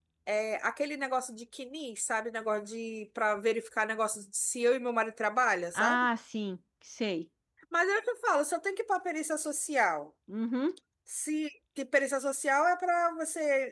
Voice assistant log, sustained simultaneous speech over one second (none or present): none